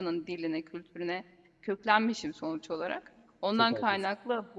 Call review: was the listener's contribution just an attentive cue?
Yes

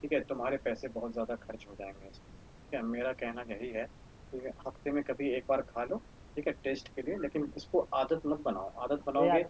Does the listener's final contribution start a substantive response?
Yes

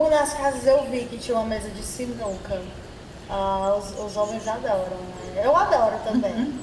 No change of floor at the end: No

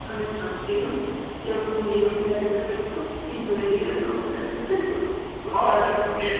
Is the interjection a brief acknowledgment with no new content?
No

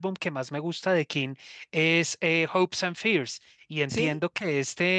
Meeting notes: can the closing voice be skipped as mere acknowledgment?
Yes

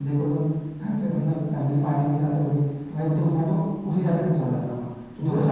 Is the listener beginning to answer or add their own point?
Yes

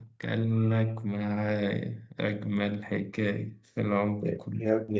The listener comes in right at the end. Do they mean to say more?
Yes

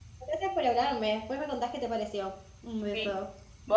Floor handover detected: Yes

